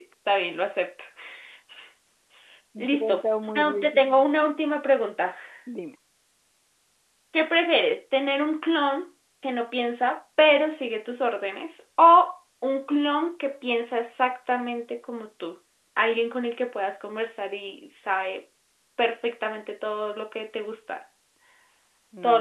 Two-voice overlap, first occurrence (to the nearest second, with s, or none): 3 s